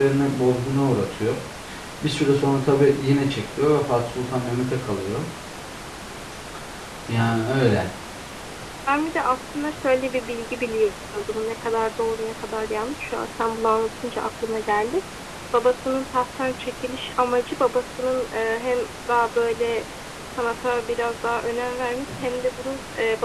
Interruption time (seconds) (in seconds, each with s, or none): none